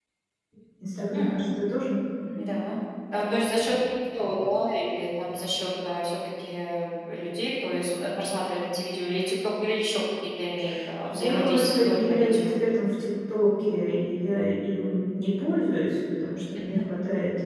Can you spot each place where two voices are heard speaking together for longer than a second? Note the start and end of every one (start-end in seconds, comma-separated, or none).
11.0-12.5